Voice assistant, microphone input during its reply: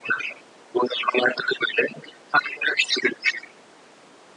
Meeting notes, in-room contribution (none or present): none